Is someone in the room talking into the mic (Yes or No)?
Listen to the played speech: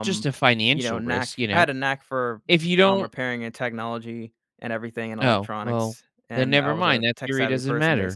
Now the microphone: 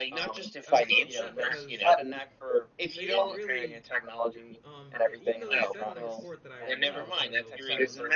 Yes